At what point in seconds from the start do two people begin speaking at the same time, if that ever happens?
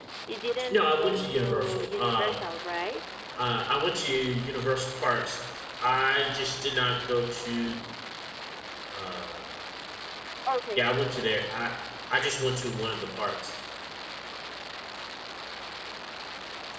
1 s

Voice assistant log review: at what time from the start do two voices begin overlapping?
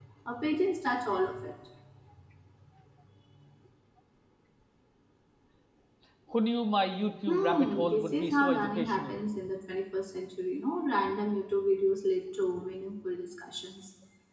7 s

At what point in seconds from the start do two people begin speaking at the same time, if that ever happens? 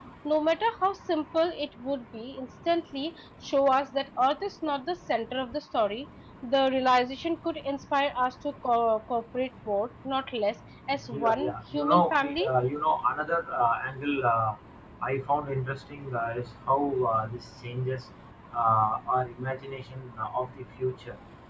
11 s

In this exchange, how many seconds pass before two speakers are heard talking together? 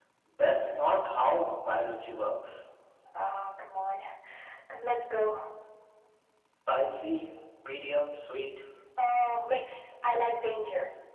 none

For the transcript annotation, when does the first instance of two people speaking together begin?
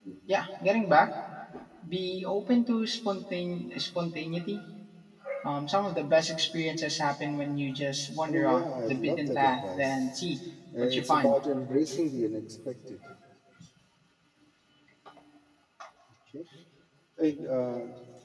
8 s

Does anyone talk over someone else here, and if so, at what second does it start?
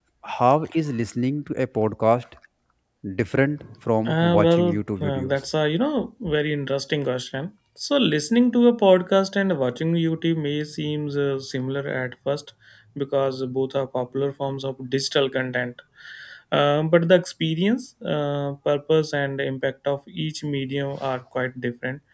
4 s

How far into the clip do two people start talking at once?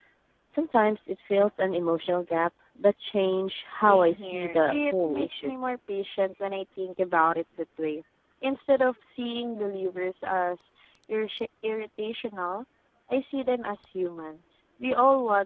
4 s

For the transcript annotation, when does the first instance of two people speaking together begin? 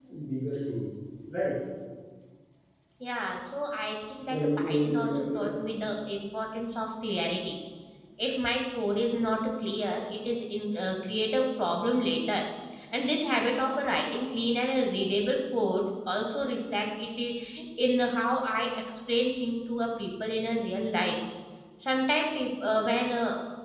4 s

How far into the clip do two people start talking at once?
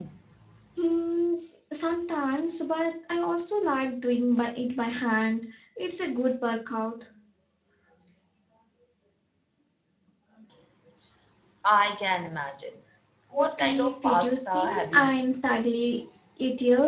13 s

